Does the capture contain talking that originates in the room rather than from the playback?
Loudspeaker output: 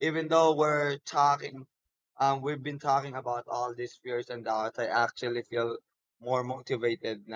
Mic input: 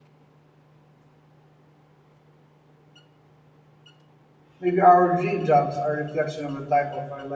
Yes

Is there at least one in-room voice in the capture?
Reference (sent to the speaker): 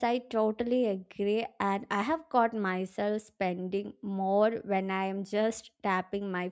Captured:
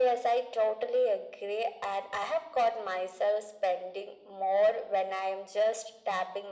No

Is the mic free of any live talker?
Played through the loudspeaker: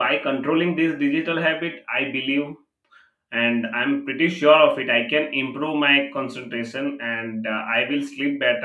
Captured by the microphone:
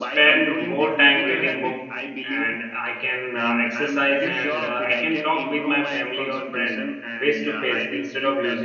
No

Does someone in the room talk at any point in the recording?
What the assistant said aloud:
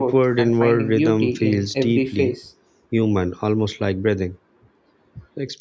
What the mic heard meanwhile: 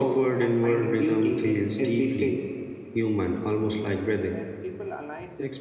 Yes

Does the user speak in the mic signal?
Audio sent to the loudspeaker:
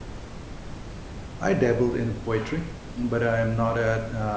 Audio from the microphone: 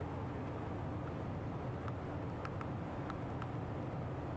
No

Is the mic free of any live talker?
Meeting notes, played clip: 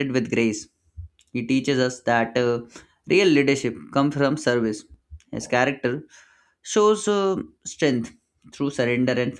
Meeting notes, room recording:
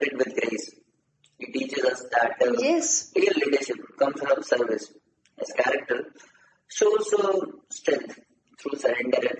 No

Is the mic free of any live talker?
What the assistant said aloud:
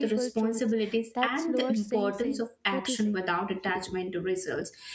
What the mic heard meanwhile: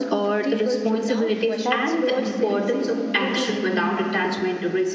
No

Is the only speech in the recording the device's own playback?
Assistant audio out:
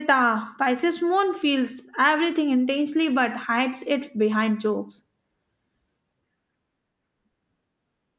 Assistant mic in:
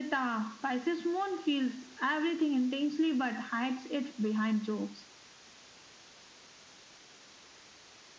Yes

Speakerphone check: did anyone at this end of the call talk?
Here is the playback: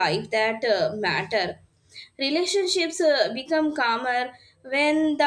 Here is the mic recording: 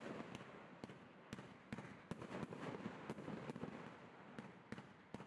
No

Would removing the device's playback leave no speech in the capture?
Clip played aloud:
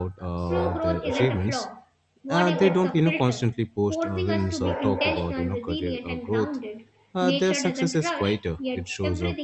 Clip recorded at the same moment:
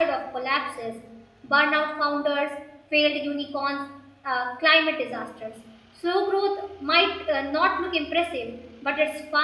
No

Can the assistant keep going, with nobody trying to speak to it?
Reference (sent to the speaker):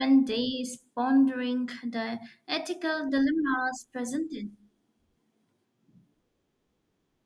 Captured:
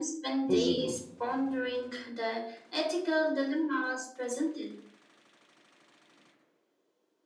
No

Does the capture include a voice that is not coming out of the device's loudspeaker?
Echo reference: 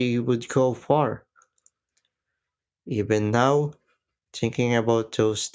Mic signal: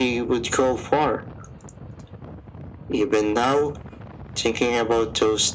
No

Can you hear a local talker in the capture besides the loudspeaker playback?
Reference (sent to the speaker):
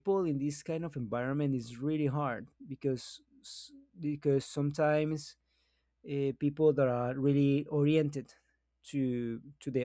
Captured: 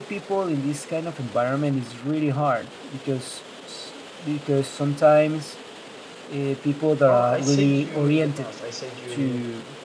Yes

